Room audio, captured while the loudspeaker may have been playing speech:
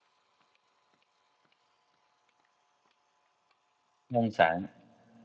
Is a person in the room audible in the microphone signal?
Yes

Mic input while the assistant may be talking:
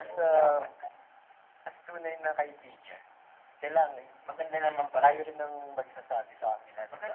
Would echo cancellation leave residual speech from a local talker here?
No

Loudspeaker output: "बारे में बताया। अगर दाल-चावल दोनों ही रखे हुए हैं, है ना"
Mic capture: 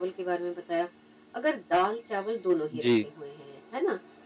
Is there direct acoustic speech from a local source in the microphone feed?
Yes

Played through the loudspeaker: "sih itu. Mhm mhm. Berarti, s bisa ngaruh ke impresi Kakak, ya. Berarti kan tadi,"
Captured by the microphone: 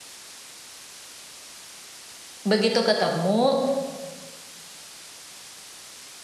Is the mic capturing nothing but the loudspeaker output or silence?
No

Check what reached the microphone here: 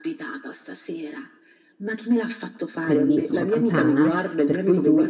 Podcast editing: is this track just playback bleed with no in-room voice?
No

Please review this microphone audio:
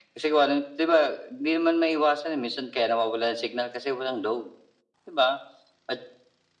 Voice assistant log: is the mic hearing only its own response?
Yes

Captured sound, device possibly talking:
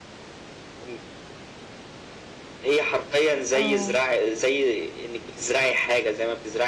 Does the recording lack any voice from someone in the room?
No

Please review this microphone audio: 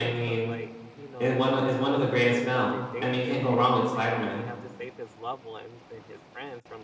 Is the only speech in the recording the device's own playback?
No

